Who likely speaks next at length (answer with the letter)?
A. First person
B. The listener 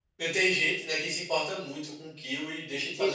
B